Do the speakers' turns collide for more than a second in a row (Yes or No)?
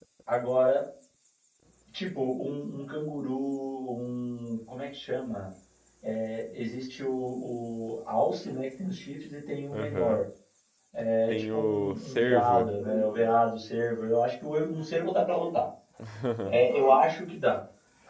Yes